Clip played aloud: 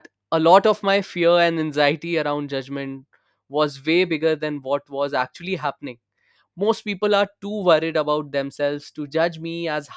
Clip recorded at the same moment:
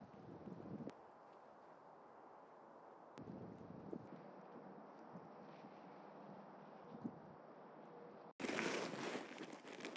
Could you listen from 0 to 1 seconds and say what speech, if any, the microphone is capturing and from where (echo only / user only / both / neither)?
neither